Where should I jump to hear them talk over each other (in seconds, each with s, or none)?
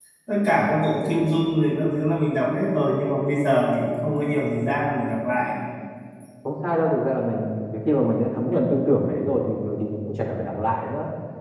none